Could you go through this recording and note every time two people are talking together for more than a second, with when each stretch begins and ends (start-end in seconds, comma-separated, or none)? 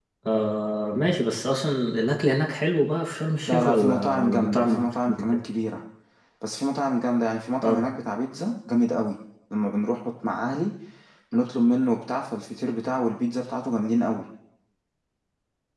3.5-5.4